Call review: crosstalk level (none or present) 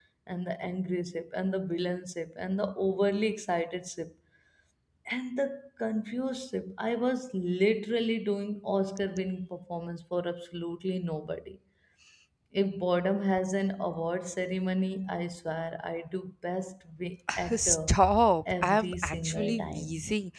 present